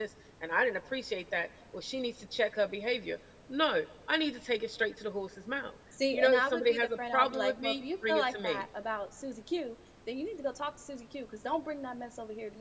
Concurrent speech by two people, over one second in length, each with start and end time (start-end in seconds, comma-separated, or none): 6.1-8.6